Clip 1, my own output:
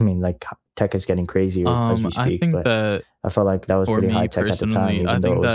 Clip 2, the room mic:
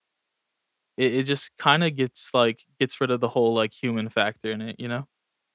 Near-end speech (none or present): present